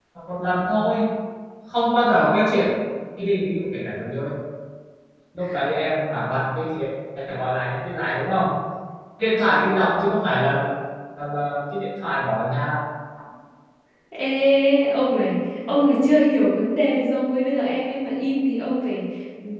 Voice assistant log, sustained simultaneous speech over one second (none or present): none